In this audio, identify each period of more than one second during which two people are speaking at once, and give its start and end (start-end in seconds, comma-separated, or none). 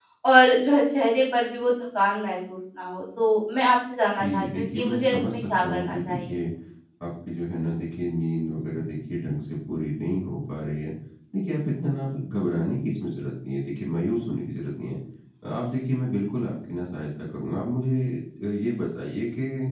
4.2-6.3